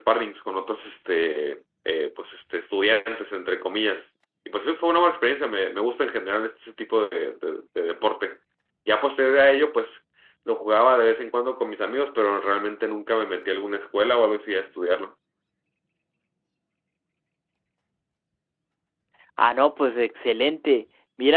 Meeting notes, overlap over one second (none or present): none